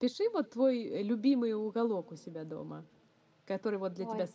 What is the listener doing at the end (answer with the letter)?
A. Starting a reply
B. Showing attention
B